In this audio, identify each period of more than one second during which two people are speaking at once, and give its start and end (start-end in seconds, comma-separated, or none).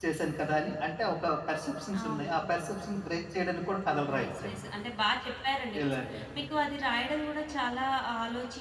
none